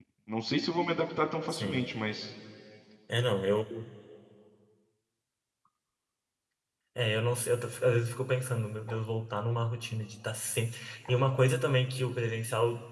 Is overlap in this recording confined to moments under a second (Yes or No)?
Yes